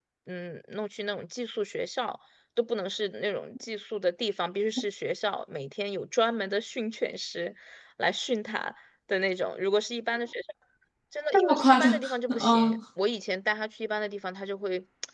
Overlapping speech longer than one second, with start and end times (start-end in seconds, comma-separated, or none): 11.3-12.8